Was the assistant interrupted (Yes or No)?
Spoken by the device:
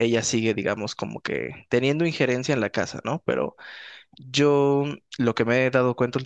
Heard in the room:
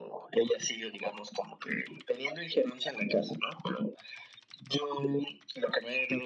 No